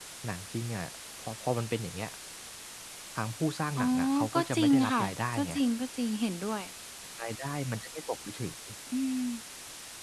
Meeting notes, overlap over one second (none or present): present